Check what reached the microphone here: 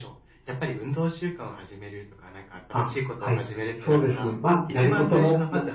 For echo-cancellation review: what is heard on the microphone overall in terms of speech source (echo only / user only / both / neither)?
both